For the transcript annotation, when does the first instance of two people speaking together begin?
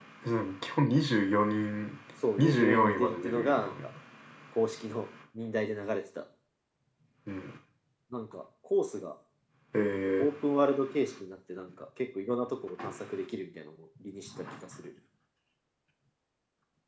2.4 s

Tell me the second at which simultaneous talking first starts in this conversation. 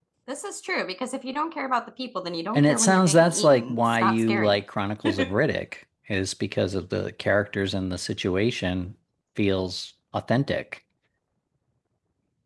2.5 s

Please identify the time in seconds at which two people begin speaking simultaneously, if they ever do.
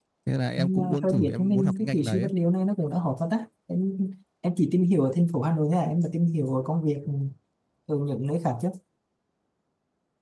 0.6 s

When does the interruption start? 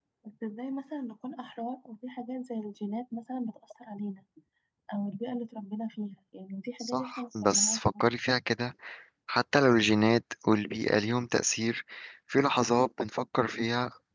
6.8 s

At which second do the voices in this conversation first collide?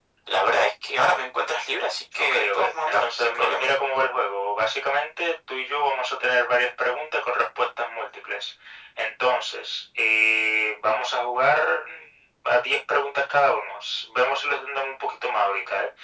2.2 s

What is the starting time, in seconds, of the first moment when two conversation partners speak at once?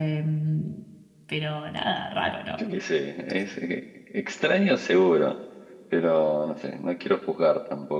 none

